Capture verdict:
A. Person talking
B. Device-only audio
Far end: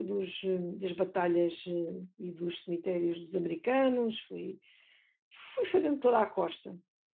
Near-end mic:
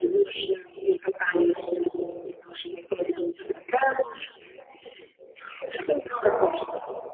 B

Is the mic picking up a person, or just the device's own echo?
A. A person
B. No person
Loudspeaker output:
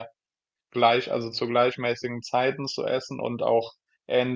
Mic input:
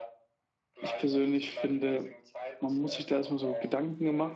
A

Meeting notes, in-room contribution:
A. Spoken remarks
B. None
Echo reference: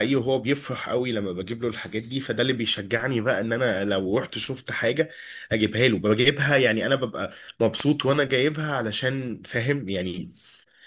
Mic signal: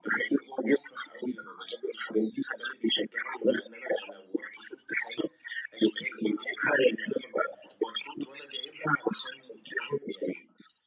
B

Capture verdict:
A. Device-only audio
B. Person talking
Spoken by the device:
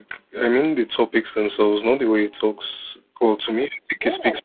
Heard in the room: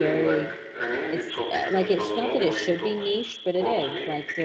B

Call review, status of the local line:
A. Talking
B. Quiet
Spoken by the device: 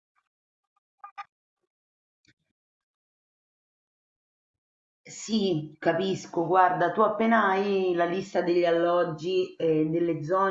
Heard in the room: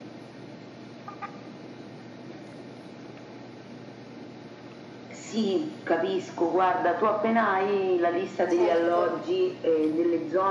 A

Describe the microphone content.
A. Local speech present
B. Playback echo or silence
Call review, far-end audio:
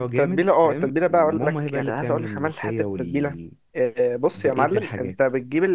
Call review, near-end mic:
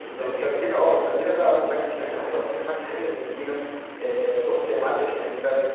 B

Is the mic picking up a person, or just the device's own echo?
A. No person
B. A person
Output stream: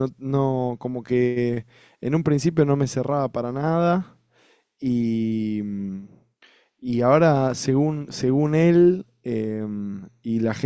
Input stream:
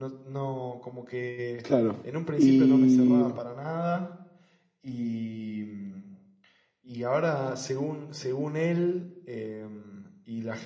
B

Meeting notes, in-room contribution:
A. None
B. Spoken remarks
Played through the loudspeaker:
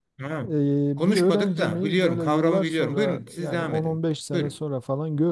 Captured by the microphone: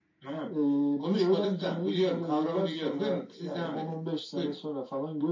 A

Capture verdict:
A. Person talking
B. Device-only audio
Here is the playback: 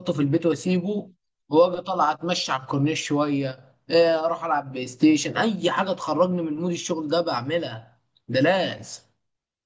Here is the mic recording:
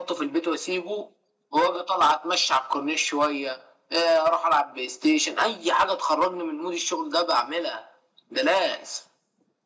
B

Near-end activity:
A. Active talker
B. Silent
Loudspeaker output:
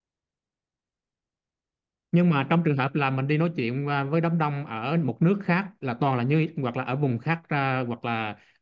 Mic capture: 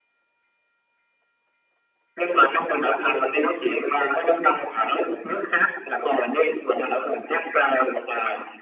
B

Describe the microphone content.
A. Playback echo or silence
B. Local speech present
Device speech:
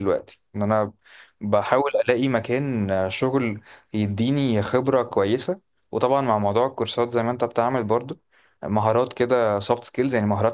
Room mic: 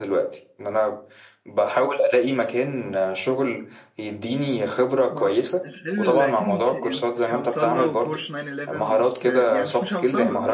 B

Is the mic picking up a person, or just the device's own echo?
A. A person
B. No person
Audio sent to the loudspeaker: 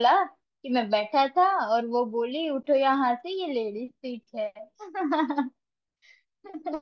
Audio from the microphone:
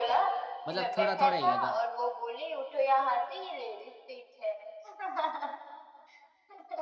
A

